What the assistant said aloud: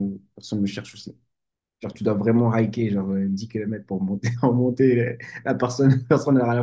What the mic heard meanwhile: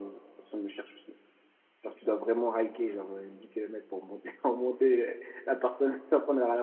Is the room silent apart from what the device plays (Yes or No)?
Yes